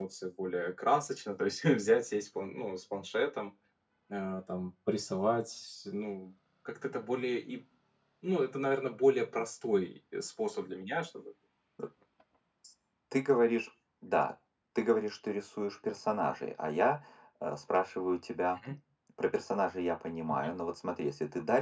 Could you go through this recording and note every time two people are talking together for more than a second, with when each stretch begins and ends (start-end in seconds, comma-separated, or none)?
none